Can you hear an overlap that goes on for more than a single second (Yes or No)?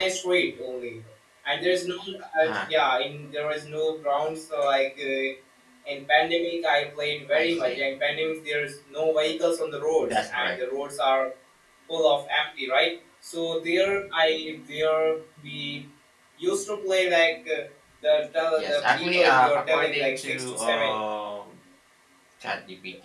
Yes